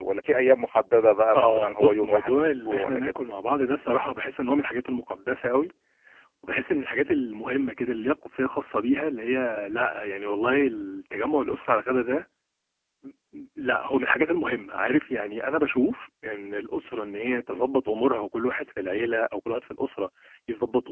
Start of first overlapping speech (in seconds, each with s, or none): 1.4 s